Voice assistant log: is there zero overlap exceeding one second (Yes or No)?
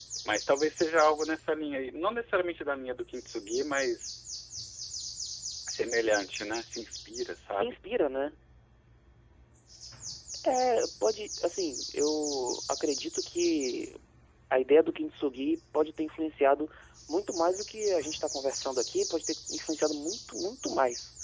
Yes